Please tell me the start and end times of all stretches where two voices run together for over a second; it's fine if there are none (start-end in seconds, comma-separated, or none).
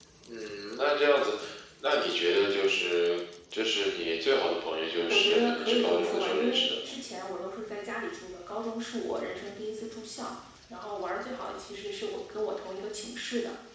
5.1-6.8